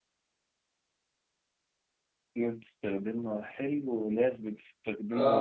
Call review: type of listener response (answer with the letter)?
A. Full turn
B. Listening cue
A